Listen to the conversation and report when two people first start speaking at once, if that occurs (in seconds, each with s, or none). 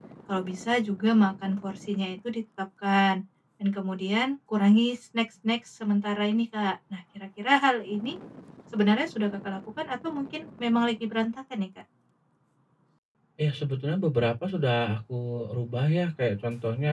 none